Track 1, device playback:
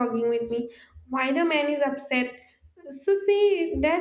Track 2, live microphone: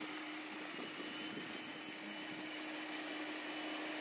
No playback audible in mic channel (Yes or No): Yes